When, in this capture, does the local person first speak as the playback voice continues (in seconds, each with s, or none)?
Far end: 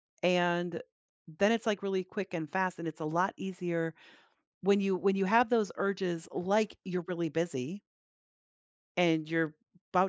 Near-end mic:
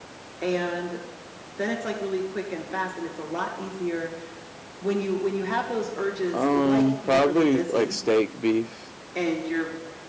6.3 s